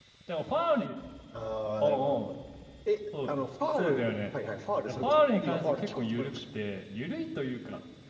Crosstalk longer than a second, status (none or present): present